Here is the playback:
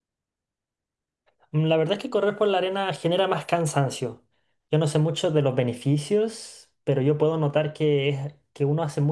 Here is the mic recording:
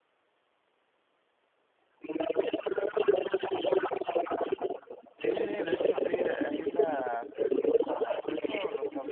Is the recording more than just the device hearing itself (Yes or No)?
Yes